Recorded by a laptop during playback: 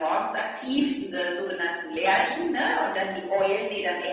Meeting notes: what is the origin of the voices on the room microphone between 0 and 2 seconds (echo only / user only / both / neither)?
echo only